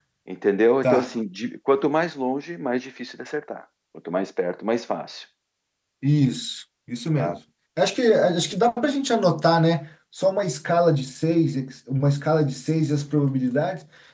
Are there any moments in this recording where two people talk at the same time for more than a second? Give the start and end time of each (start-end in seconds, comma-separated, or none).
none